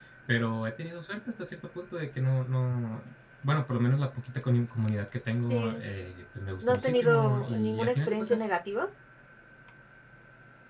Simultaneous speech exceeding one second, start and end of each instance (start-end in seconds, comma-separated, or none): 6.6-8.5